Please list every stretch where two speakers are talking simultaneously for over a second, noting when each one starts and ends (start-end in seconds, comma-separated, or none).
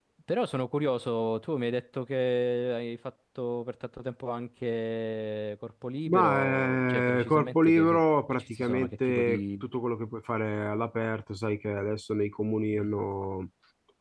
6.1-7.8, 8.3-9.6